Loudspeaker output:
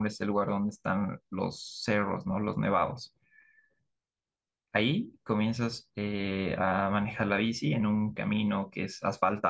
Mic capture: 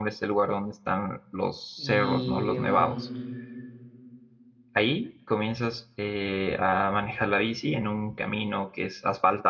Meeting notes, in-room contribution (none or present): present